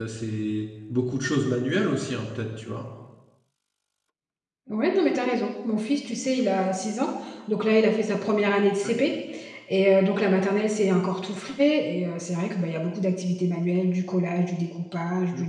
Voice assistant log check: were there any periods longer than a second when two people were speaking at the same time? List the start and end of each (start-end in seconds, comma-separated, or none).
none